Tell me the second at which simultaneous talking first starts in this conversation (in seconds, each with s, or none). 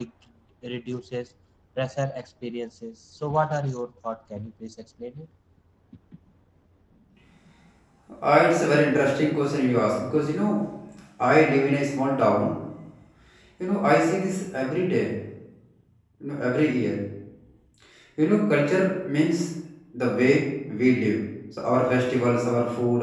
none